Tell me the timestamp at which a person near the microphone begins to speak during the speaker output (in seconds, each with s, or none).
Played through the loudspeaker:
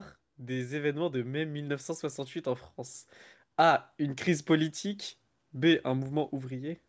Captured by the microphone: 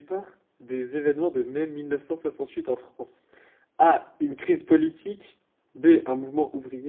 none